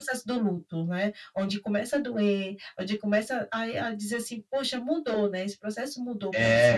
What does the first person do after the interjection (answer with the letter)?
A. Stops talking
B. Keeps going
A